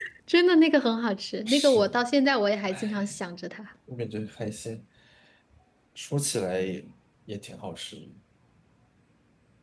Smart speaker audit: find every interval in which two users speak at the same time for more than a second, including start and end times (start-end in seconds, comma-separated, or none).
none